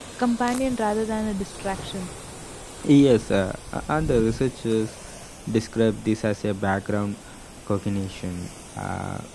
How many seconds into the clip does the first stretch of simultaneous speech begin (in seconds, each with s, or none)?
none